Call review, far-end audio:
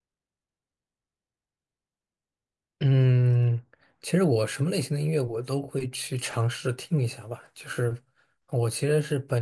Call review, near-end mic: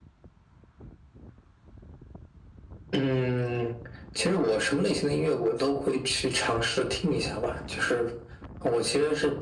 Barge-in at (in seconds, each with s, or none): none